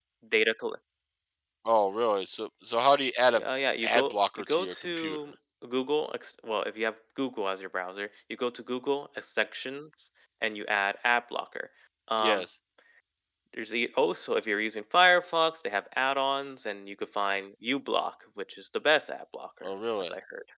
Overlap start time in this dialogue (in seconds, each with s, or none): 3.8 s